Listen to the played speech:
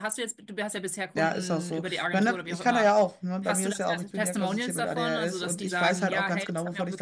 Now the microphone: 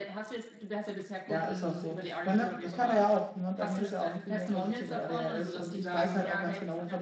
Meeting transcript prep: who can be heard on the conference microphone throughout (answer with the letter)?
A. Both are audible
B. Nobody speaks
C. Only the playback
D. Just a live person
C